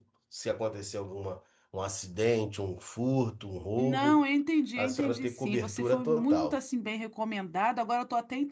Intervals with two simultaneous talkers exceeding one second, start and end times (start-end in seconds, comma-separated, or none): 4.8-6.6